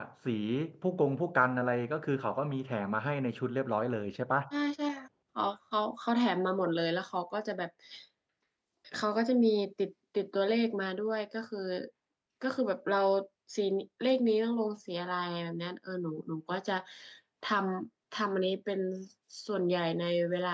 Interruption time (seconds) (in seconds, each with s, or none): none